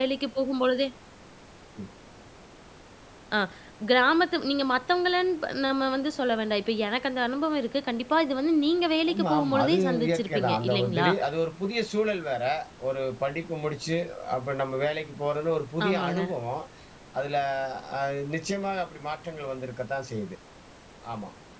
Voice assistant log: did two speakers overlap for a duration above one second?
Yes, from 9.1 s

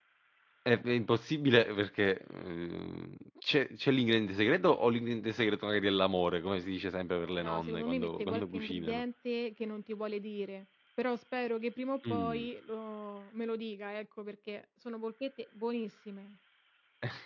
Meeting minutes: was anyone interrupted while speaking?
Yes, from 7.4 s

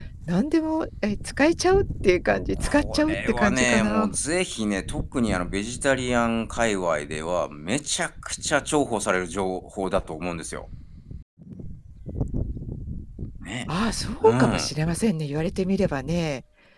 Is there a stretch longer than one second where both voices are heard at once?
Yes, from 2.6 s

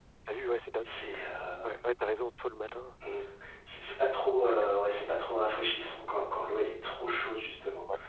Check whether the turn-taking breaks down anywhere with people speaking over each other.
No

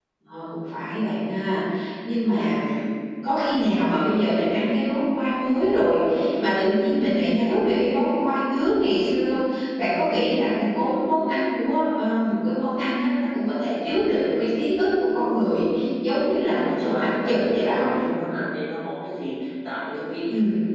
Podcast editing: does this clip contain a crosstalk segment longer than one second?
Yes, from 16.6 s

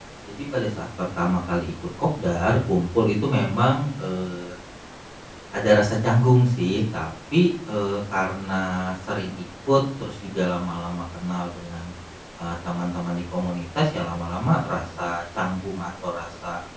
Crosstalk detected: No

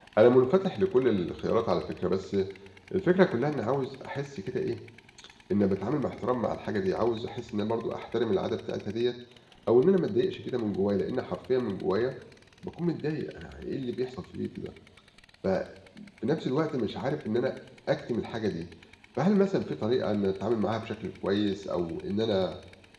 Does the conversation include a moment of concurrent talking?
No

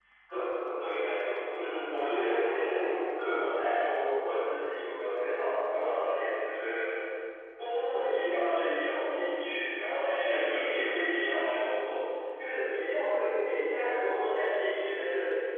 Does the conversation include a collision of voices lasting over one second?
Yes, from 1.5 s

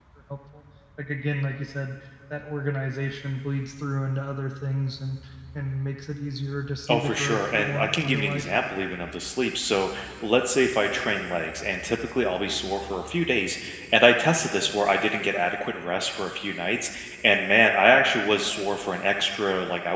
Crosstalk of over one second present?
Yes, from 6.8 s

